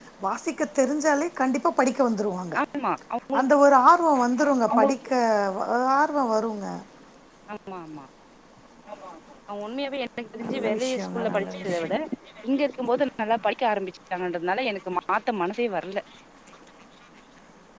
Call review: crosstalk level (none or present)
present